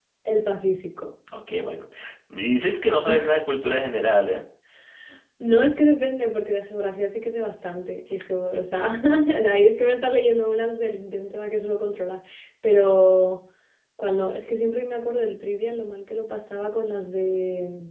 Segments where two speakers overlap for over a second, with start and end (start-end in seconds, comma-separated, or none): none